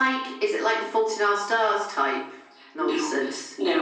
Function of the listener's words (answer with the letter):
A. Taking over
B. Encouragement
A